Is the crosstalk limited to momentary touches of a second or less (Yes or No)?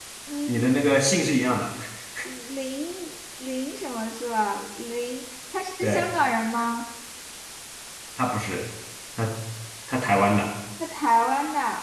Yes